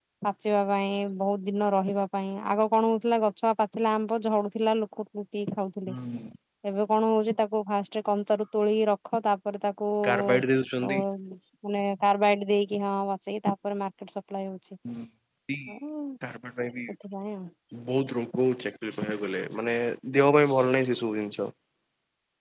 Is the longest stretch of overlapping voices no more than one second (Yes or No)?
Yes